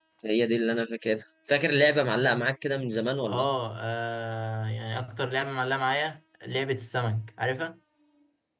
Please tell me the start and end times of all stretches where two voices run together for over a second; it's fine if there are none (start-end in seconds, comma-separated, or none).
none